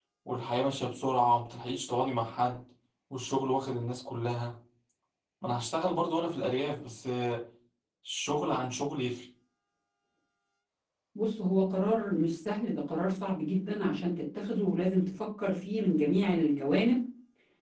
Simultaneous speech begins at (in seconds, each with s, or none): none